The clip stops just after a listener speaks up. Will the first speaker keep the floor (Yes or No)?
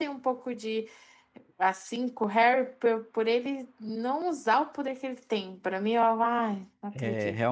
No